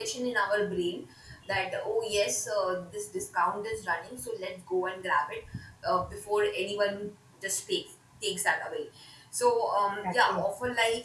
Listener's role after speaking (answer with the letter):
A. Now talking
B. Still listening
B